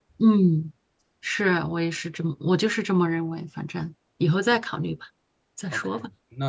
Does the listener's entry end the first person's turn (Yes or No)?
Yes